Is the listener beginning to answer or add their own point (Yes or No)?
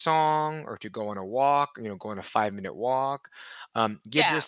No